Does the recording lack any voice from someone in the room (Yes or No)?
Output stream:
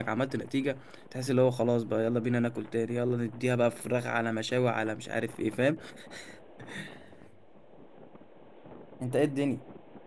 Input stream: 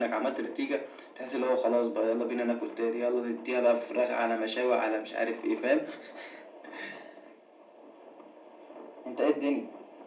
Yes